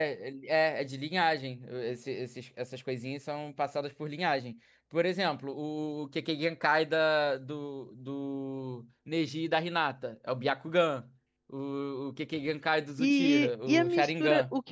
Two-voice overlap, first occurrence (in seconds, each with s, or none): 13.0 s